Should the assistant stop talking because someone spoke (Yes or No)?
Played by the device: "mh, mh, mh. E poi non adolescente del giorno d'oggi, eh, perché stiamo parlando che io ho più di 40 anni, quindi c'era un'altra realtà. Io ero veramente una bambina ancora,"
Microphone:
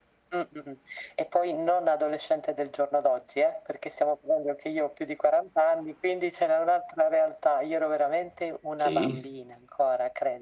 Yes